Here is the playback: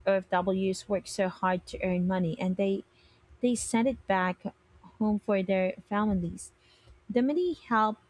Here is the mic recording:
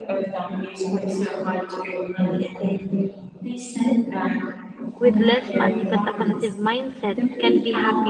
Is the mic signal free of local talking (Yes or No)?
No